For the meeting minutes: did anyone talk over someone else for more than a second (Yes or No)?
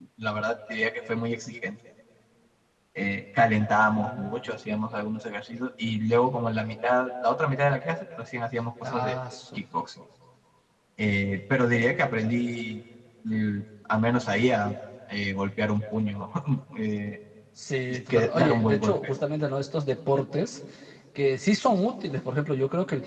Yes